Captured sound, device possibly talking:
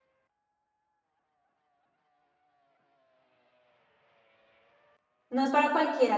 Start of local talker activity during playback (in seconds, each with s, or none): 5.3 s